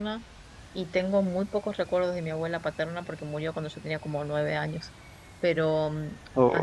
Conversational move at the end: listening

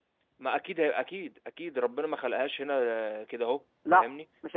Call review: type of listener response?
taking over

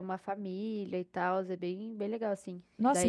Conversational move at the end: taking over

